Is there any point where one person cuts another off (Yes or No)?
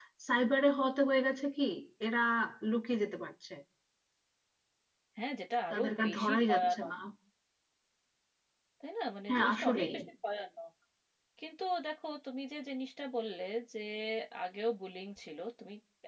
Yes